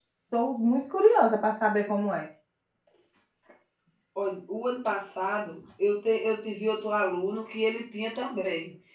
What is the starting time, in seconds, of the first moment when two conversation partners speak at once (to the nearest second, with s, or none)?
none